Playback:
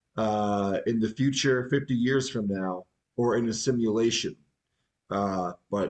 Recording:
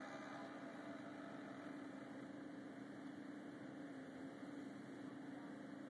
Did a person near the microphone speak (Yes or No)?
No